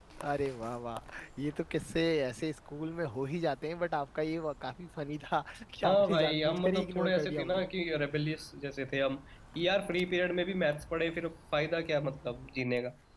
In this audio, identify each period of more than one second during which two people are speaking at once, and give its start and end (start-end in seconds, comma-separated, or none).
5.9-7.6